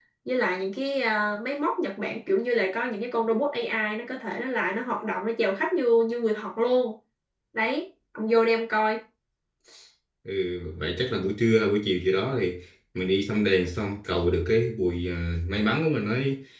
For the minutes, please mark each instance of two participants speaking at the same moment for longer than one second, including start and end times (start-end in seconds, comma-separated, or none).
none